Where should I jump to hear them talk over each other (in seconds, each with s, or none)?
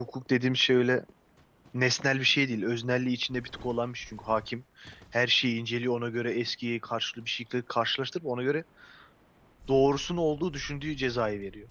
none